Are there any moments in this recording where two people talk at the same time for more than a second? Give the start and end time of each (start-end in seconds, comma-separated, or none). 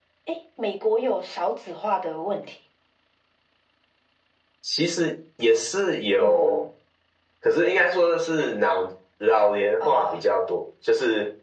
none